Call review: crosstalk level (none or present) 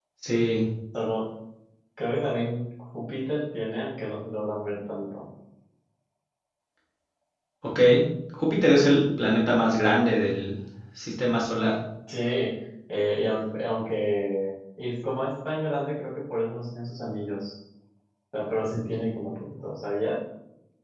none